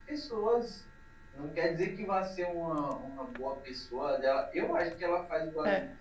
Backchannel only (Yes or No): Yes